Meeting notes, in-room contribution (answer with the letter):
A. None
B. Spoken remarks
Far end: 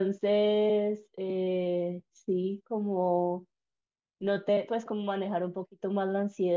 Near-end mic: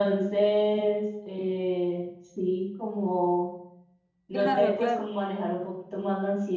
B